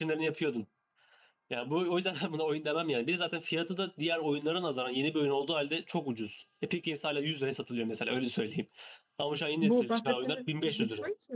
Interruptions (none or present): present